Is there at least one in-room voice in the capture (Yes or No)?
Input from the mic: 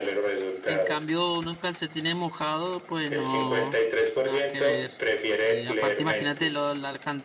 Yes